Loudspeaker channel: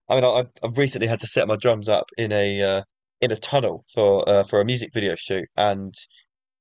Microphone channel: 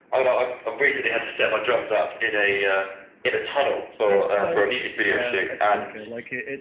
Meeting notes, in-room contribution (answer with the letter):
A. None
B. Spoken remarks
B